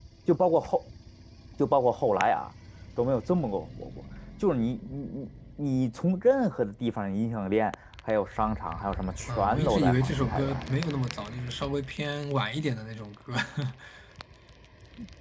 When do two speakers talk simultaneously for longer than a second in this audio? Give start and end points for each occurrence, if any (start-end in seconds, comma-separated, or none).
9.3-10.6